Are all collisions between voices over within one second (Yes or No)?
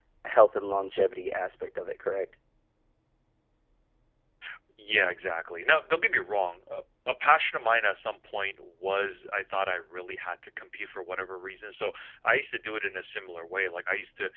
Yes